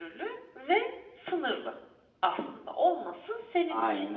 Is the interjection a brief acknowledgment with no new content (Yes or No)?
Yes